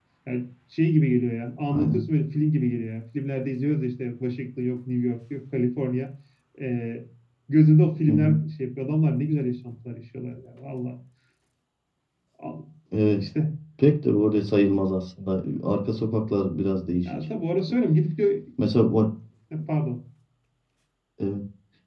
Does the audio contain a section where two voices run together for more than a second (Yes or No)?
No